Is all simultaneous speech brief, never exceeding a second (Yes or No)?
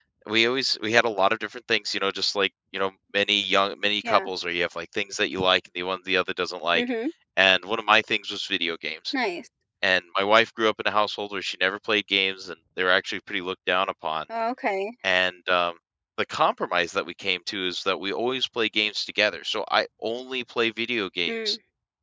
Yes